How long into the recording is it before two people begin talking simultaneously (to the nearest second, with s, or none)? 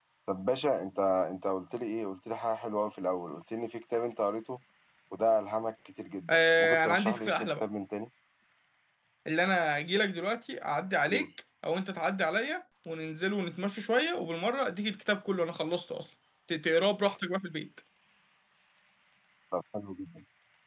6 s